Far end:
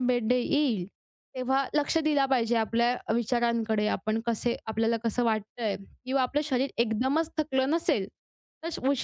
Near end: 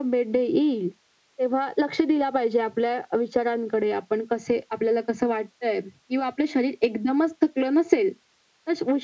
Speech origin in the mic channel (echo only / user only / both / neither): echo only